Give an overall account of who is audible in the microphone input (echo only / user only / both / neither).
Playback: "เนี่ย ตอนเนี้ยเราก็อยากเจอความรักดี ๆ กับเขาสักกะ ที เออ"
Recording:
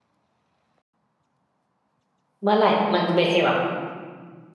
user only